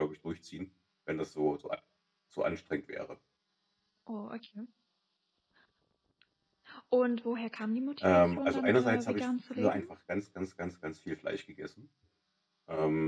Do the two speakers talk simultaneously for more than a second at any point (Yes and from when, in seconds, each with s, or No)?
Yes, from 8.0 s